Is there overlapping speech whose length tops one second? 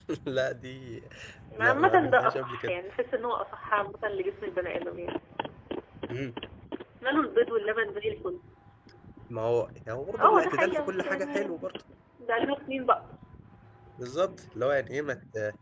Yes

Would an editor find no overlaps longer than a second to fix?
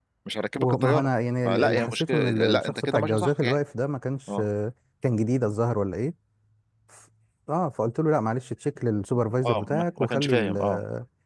No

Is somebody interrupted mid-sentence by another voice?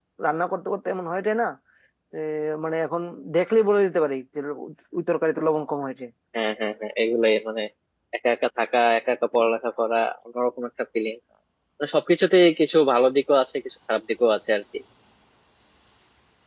No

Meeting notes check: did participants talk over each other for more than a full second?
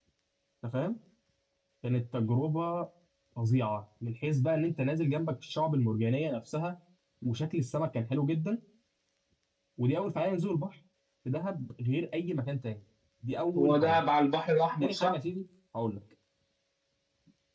No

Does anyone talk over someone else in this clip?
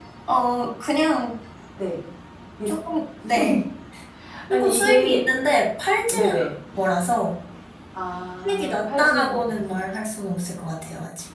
Yes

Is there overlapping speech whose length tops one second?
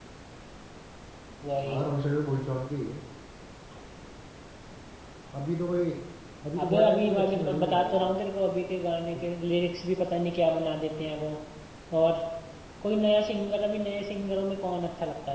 Yes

